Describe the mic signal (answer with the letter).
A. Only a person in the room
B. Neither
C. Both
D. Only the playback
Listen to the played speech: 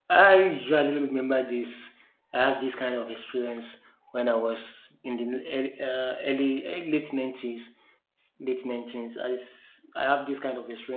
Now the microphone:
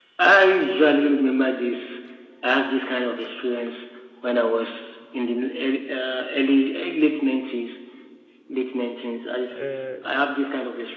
C